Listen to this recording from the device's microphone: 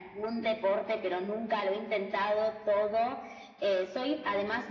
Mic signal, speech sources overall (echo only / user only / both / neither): echo only